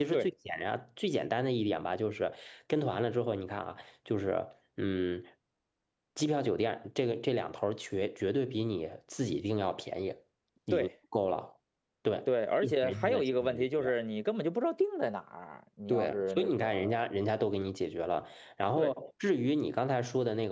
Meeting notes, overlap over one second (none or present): present